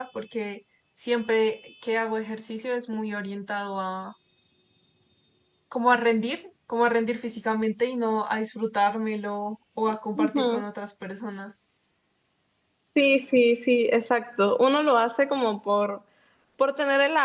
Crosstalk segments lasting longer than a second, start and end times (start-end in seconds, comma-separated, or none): none